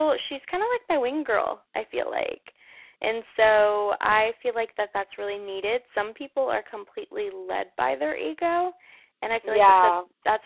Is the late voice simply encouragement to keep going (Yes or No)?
Yes